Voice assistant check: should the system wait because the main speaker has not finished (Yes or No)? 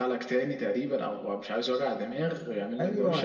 No